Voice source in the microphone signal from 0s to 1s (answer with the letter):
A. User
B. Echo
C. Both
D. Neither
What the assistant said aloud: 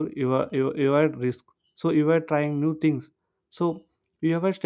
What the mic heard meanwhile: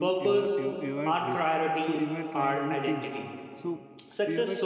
C